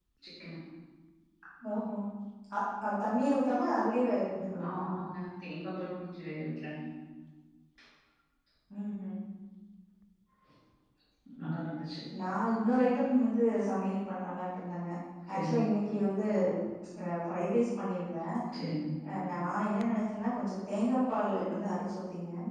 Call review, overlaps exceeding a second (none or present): none